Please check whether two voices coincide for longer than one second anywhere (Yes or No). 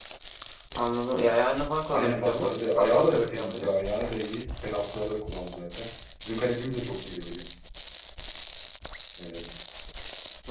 Yes